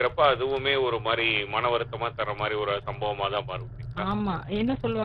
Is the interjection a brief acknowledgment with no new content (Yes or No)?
No